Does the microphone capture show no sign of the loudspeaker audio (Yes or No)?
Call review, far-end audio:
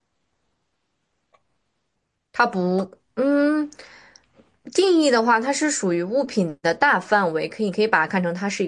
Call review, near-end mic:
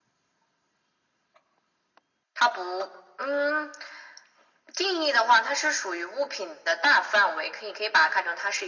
No